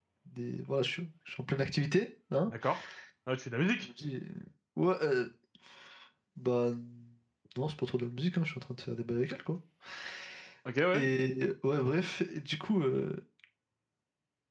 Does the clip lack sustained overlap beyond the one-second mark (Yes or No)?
Yes